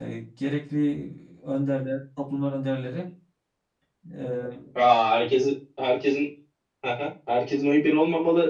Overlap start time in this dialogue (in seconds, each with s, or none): none